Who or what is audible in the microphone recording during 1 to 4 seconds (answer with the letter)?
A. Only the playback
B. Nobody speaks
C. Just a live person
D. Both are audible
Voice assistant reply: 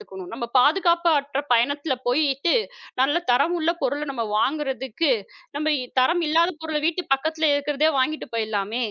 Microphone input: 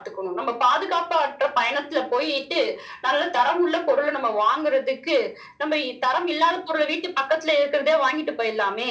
A